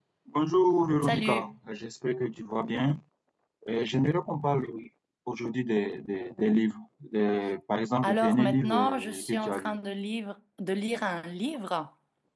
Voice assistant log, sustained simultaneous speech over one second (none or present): present